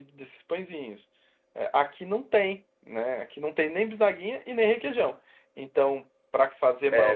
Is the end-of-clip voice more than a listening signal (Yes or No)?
Yes